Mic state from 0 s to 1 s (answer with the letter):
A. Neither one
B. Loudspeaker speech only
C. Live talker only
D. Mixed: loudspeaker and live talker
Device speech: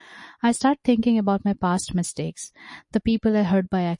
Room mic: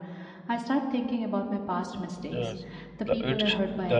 B